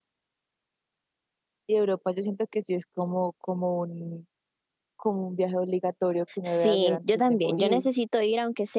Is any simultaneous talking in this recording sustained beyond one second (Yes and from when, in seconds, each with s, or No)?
Yes, from 6.4 s